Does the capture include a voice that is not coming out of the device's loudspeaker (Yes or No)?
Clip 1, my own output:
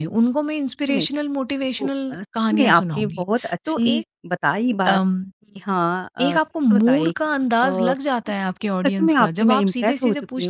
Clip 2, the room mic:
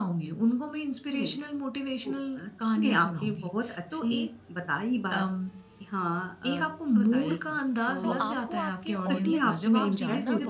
Yes